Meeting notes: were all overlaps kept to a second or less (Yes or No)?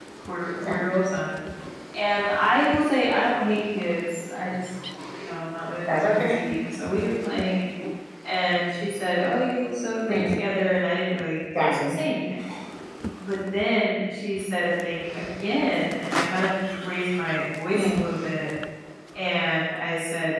Yes